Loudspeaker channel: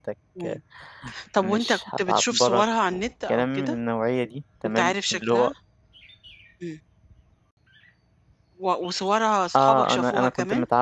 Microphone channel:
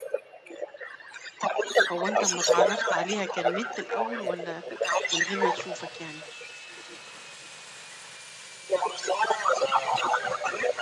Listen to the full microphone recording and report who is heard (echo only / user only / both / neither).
both